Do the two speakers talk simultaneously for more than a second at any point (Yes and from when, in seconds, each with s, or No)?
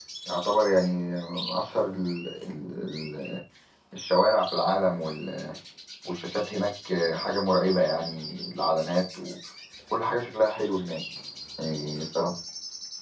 No